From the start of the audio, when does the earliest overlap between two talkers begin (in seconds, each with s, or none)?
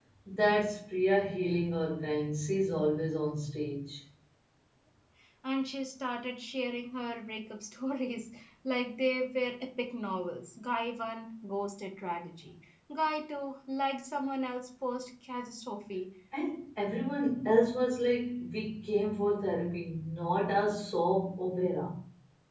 none